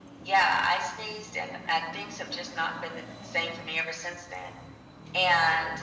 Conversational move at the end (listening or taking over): listening